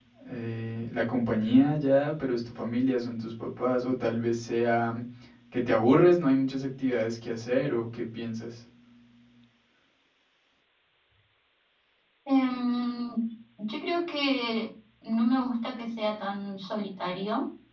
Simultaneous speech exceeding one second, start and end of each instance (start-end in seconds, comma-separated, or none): none